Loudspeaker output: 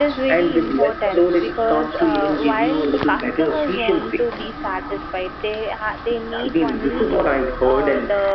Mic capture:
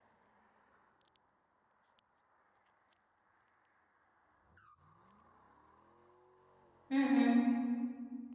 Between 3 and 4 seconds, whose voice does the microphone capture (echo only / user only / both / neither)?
neither